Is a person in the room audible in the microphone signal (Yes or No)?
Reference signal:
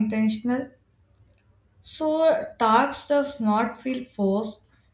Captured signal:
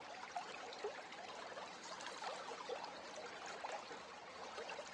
No